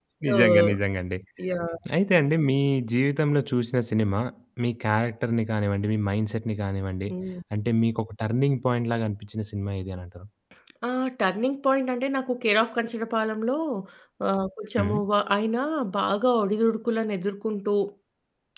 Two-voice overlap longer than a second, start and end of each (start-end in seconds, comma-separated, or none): none